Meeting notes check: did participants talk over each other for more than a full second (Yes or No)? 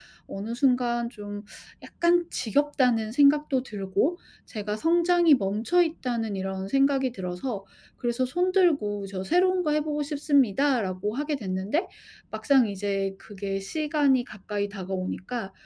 No